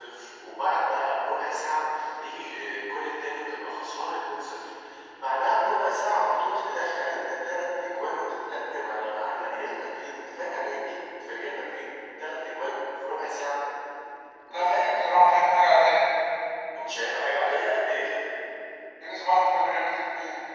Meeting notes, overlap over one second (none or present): none